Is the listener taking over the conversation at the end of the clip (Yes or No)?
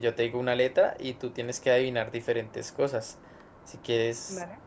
No